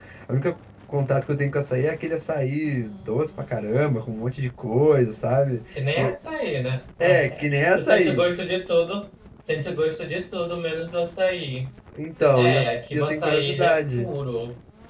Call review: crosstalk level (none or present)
present